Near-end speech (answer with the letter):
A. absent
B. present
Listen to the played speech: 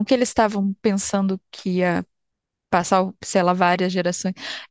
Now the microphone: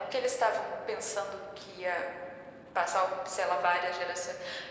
A